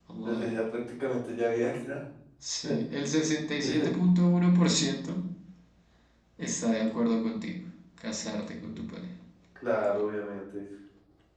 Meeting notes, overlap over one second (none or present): none